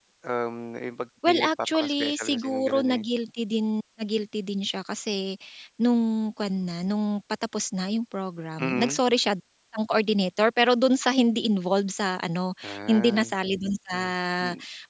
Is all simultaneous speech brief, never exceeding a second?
No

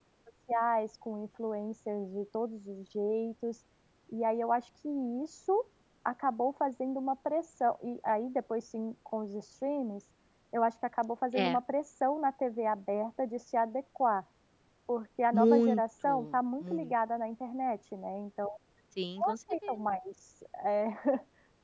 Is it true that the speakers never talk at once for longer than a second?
No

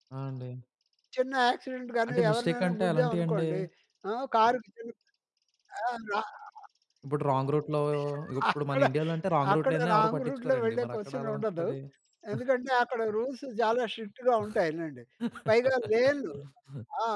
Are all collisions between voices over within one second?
No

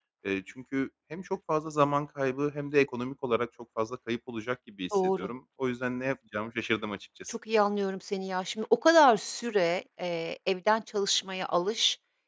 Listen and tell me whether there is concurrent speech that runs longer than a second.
No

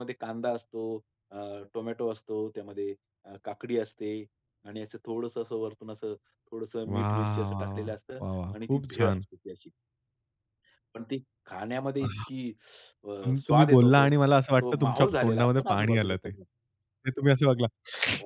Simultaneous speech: Yes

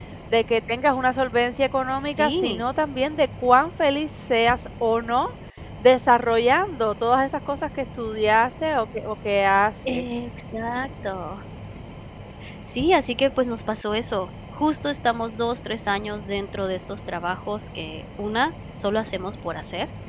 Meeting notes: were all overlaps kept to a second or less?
Yes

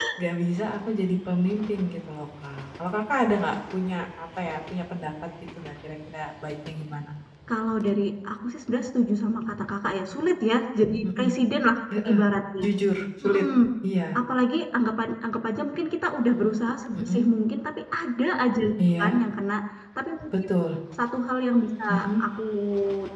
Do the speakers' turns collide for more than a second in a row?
No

